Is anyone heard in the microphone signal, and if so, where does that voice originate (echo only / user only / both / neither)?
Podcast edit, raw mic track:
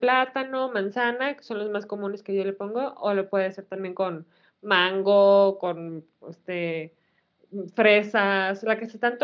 user only